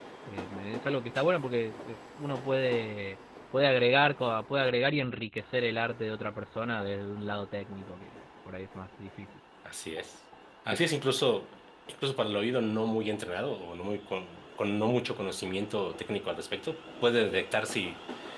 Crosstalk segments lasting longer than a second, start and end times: none

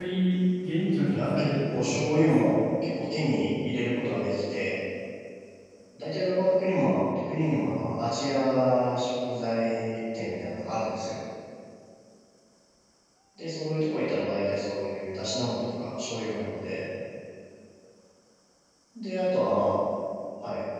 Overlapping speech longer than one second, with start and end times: 1.1-2.5

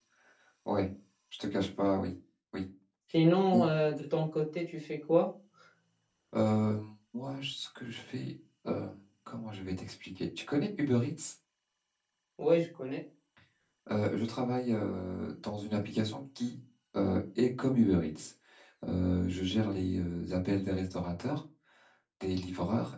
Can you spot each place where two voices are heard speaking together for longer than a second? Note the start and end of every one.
none

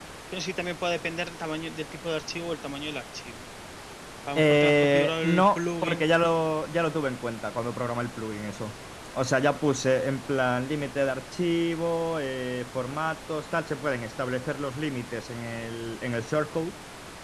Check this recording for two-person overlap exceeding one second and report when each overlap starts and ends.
4.4-6.0

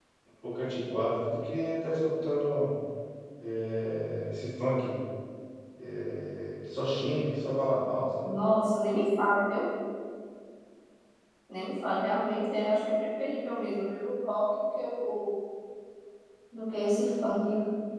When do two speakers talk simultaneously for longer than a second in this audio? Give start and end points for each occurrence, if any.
none

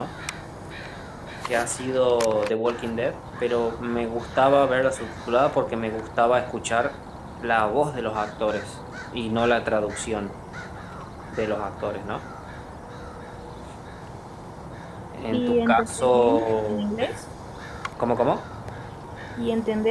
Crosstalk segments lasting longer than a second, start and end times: 15.3-17.1

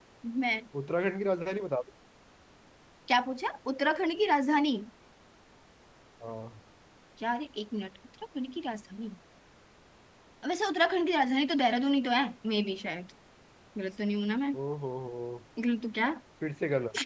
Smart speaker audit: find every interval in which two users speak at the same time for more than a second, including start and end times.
none

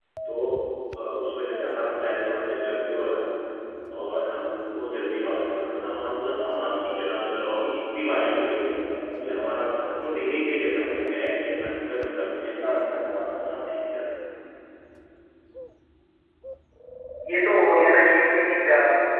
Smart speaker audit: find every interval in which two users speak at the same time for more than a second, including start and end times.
none

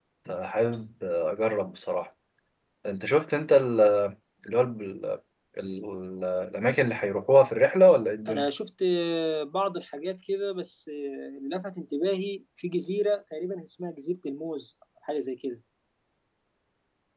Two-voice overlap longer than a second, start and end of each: none

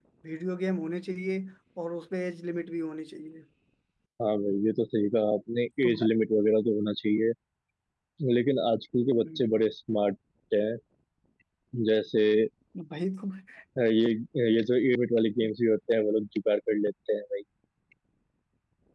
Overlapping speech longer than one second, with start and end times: none

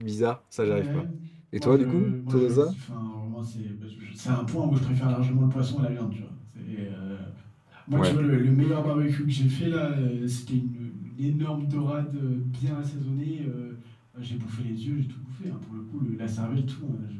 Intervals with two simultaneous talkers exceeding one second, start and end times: 1.6-2.8

